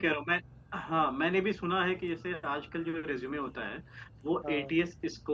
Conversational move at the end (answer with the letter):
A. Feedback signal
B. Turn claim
A